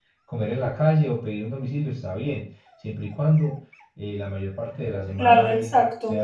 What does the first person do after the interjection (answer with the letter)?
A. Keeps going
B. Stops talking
B